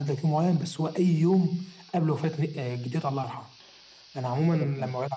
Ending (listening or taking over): listening